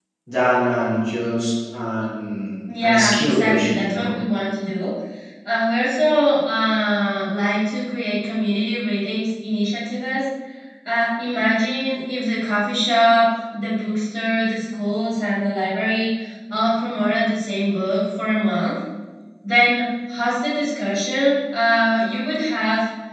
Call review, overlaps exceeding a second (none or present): present